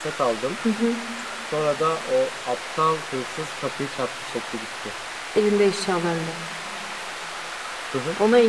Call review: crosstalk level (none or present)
none